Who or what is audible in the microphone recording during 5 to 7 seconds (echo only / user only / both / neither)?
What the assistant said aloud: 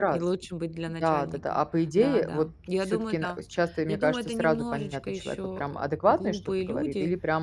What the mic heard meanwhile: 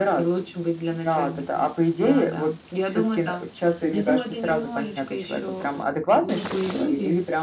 echo only